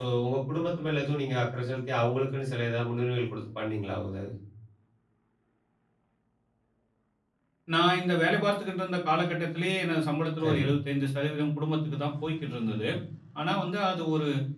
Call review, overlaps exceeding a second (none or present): none